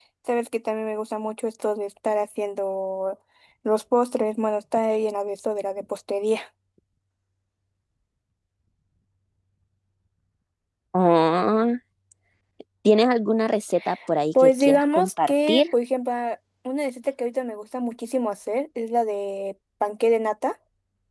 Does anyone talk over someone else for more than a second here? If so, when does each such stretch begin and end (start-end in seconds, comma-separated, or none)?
14.4-15.6